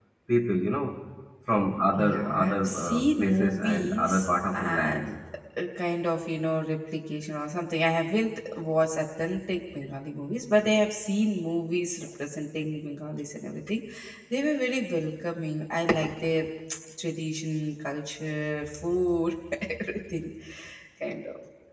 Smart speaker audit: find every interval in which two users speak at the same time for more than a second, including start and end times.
2.1-5.1

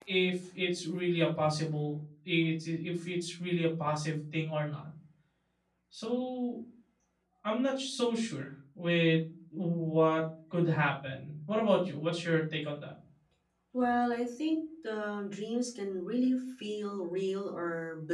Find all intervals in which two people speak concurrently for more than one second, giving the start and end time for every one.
none

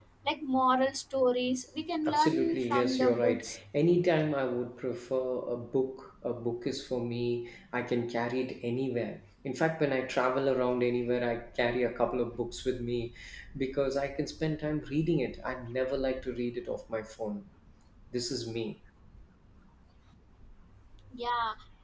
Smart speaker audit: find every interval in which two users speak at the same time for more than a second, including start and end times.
2.1-3.6

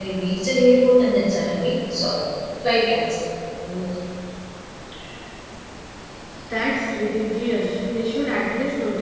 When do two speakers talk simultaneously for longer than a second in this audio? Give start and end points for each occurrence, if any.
none

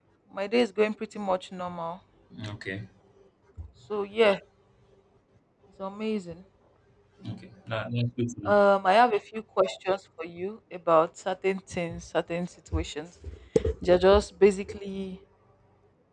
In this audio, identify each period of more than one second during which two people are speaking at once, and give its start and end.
none

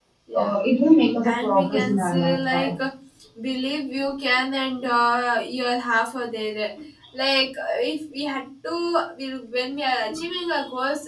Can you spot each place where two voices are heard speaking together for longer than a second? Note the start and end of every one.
1.2-2.7

